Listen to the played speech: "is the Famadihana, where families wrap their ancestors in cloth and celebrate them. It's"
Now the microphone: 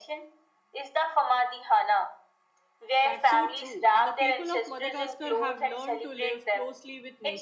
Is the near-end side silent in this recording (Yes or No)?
No